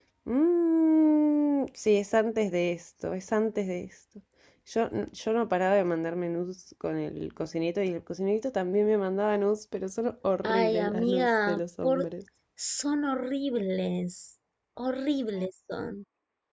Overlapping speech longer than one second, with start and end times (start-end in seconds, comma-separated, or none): 10.4-12.1